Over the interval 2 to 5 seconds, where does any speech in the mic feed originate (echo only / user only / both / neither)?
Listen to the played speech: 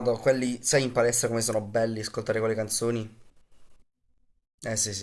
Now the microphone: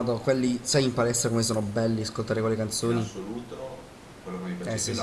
both